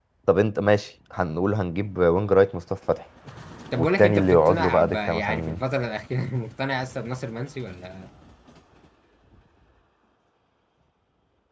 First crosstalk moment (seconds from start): 3.8 s

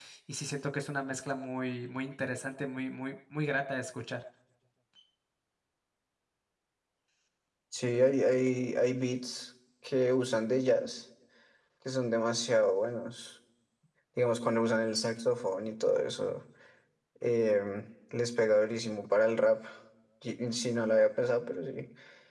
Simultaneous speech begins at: none

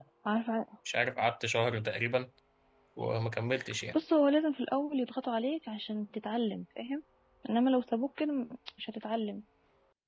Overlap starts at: none

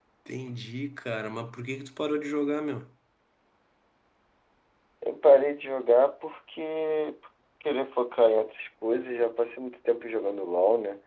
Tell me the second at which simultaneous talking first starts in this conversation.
none

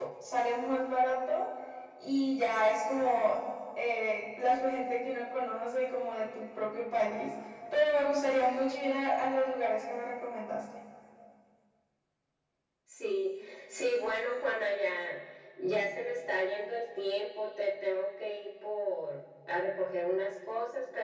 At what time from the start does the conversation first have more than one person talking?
none

